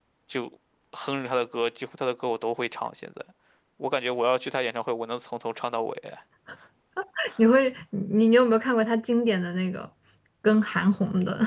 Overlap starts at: none

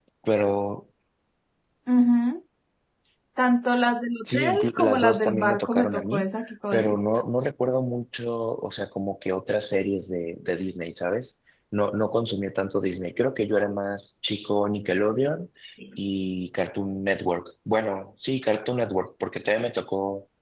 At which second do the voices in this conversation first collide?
4 s

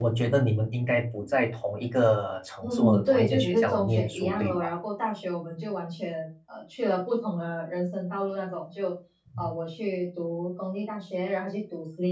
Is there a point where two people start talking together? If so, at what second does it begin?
3 s

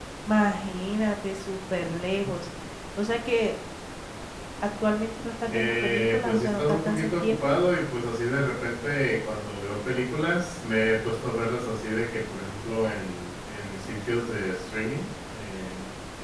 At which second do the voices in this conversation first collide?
6 s

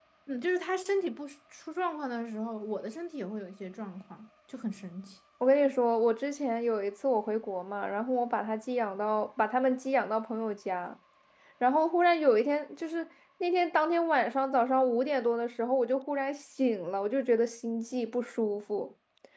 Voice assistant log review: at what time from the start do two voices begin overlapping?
none

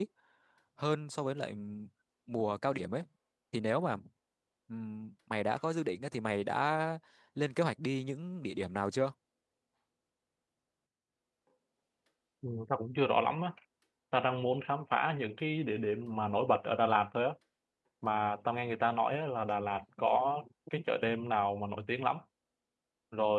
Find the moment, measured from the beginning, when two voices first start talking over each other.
none

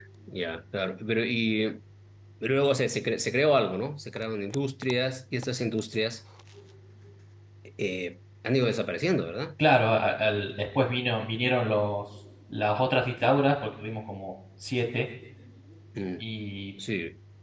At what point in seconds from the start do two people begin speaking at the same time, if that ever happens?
none

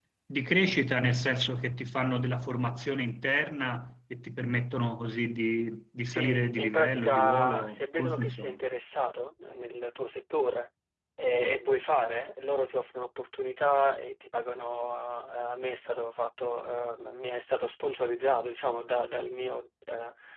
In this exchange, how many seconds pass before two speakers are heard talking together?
6 s

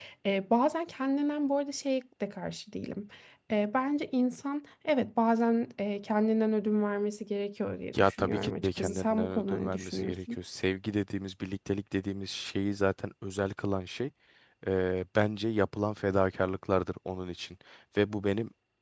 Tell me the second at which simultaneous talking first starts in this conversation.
8 s

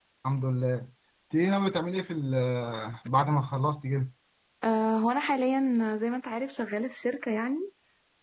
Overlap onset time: none

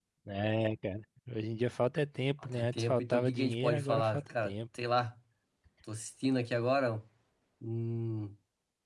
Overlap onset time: 2 s

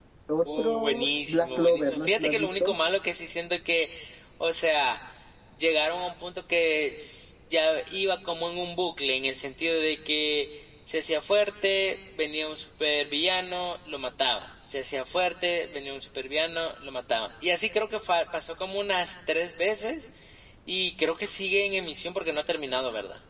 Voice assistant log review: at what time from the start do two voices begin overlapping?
1 s

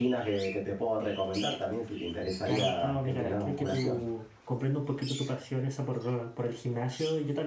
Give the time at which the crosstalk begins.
2 s

